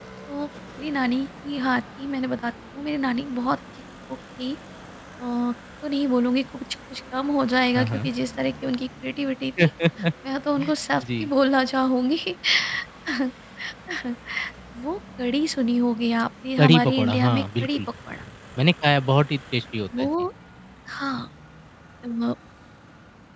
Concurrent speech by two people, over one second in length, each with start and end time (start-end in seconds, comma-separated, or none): 16.6-17.8